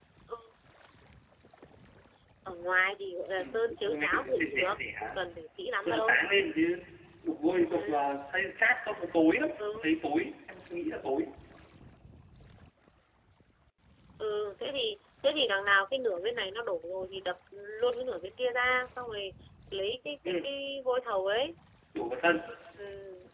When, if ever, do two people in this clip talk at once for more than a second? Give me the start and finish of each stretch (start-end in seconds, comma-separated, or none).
3.4-5.1